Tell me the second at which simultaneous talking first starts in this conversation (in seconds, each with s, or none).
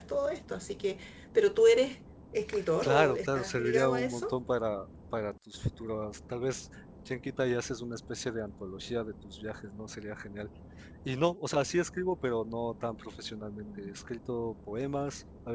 2.8 s